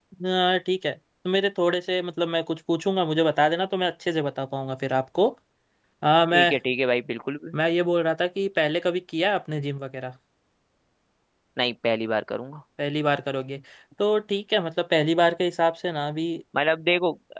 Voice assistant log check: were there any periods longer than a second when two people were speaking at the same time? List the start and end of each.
none

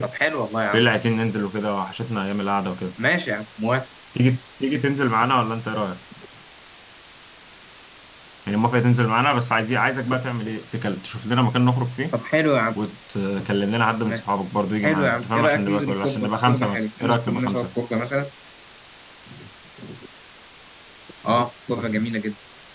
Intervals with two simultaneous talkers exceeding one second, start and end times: 14.8-17.7

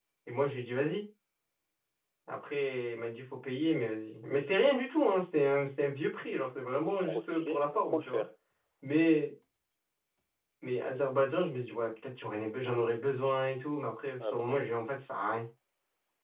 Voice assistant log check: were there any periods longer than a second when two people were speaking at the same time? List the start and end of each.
6.9-8.2

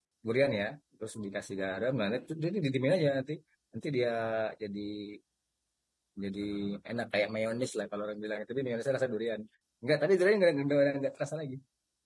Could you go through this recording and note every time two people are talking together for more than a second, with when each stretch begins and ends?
none

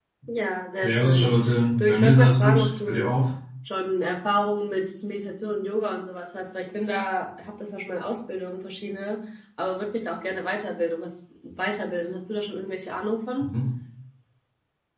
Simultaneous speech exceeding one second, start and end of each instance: 1.8-3.1

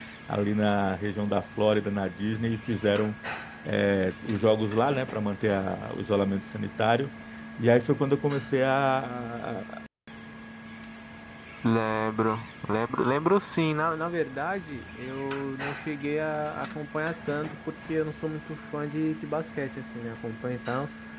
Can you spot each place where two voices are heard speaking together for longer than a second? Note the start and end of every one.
none

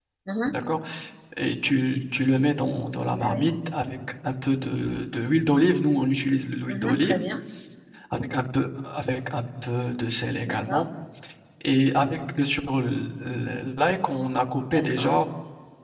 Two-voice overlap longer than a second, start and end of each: none

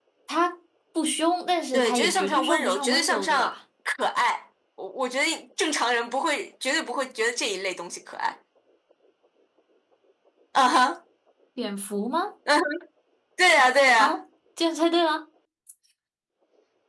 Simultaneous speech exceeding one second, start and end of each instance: 1.7-3.6

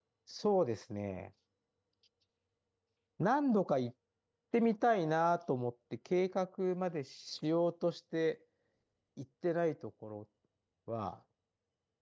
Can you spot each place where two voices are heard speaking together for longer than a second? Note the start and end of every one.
none

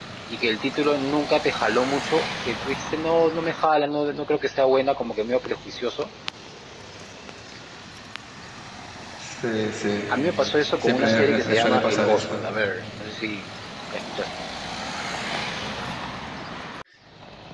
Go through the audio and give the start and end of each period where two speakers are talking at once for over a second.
10.8-12.4

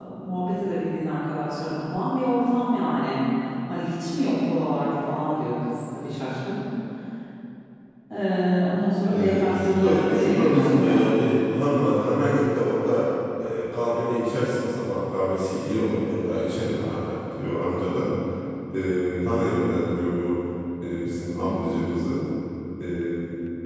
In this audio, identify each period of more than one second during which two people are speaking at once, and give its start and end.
9.1-10.9

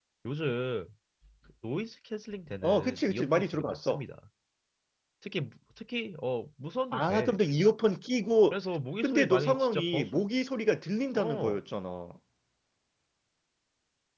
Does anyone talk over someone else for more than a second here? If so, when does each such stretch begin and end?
2.6-4.0, 9.0-10.2

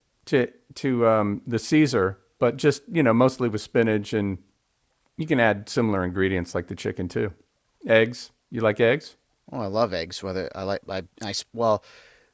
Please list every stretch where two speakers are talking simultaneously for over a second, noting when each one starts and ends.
none

